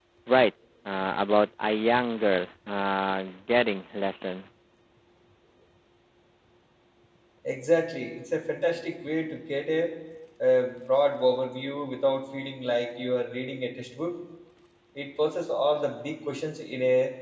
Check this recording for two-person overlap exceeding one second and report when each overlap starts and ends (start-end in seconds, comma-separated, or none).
none